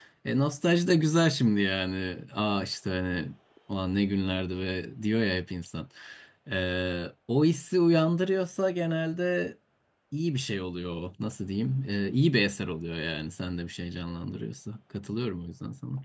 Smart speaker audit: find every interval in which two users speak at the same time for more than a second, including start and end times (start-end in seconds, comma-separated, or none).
none